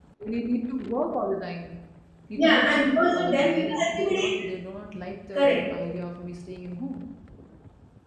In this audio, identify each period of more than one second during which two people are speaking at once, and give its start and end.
2.4-4.5

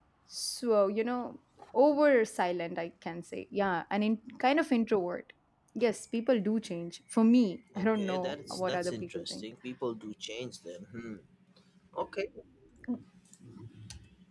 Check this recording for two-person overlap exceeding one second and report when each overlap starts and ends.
8.0-9.4

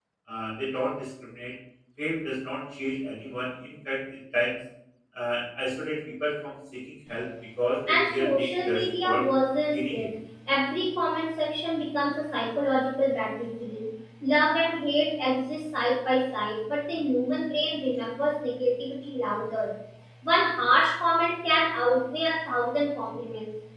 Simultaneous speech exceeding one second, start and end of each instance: 7.9-9.2

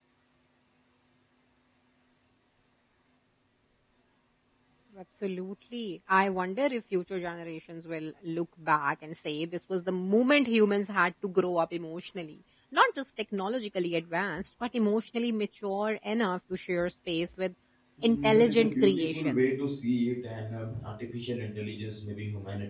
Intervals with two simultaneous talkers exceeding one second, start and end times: 18.0-19.4

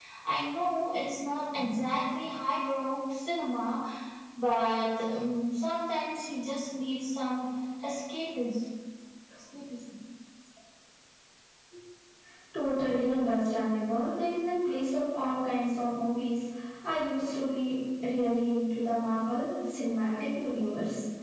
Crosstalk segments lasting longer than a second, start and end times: none

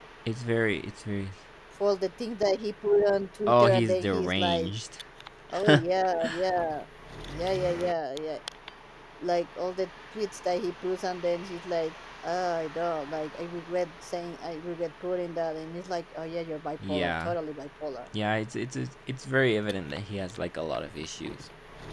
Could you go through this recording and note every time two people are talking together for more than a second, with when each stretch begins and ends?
3.5-4.7

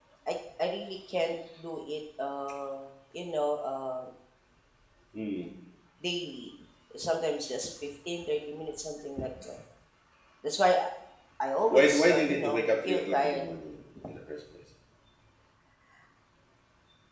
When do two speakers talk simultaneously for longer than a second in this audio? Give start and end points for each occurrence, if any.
11.7-13.4

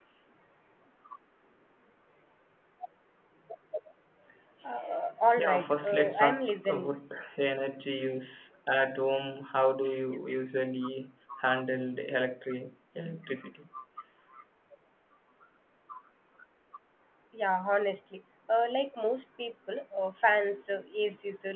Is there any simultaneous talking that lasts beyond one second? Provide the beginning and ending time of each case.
5.4-6.9

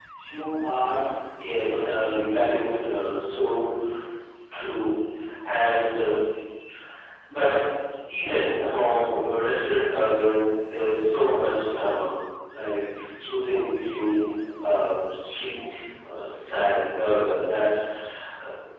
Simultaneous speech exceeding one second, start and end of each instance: 1.5-3.0

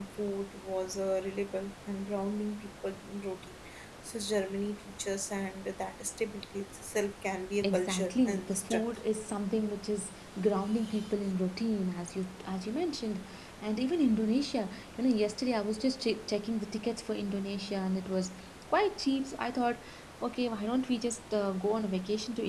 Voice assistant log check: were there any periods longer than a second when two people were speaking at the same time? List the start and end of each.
7.6-8.9

